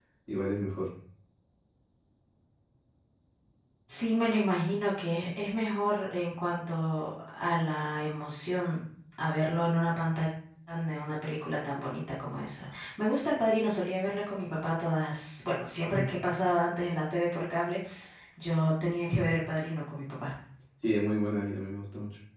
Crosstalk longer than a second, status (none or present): none